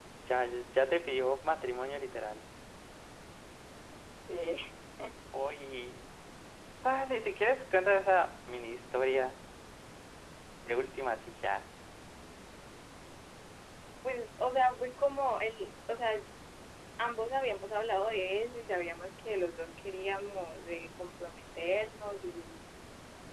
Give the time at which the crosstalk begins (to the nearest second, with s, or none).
none